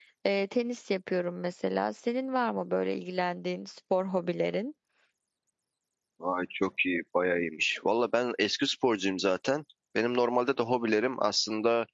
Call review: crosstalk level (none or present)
none